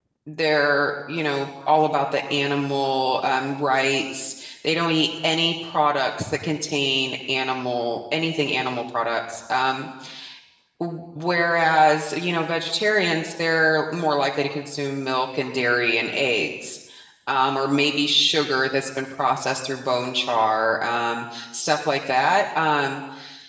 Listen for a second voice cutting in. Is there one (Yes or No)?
No